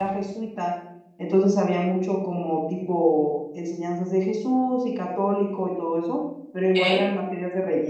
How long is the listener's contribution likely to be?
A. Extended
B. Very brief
B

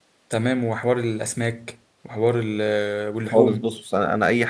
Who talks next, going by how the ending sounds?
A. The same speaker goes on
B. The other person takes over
B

